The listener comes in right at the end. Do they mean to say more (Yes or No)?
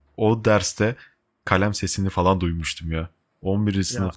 No